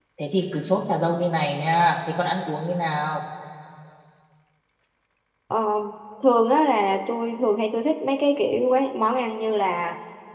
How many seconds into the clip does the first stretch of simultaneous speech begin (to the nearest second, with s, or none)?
none